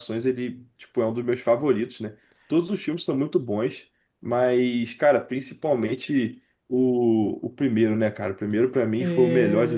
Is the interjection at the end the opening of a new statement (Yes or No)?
Yes